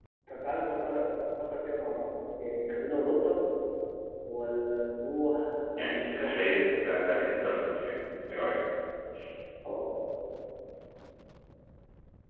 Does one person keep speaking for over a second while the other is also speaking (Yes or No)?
Yes